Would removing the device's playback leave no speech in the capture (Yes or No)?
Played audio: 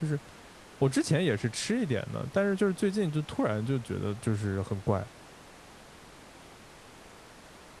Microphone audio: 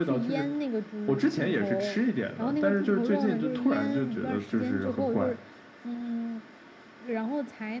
No